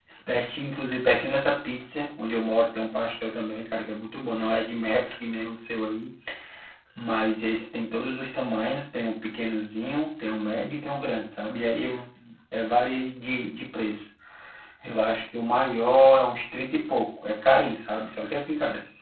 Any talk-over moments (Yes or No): No